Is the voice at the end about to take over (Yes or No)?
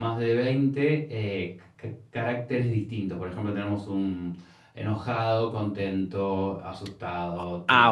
Yes